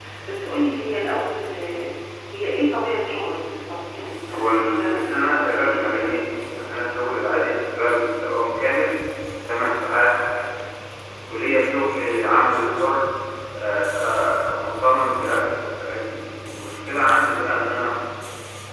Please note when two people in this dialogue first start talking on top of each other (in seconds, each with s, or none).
4.3 s